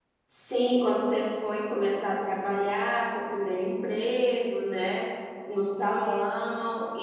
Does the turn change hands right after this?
No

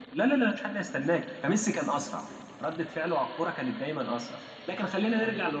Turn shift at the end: No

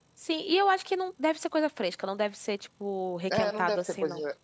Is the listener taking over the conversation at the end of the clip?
Yes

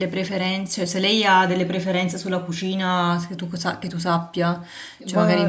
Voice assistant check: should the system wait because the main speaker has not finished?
No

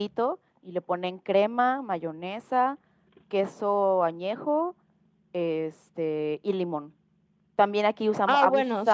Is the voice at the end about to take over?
Yes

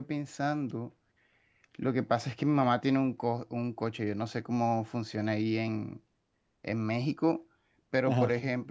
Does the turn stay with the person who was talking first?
Yes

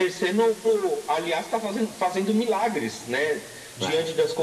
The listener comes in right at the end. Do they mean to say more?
No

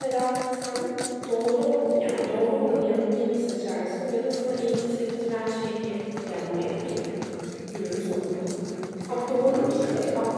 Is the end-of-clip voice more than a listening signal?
No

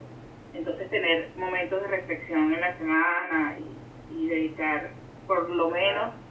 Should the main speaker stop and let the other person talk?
No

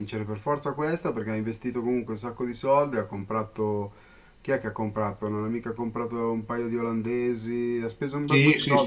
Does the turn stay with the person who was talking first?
No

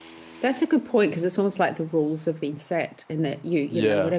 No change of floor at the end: Yes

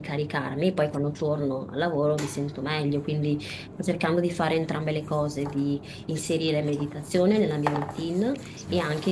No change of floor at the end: Yes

